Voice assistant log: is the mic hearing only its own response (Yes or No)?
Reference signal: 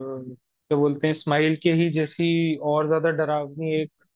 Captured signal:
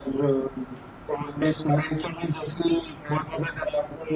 Yes